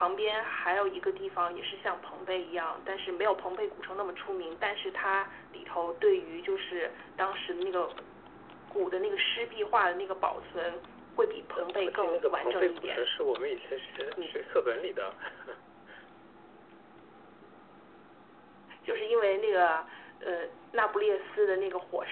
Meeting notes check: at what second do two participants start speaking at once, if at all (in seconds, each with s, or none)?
11.6 s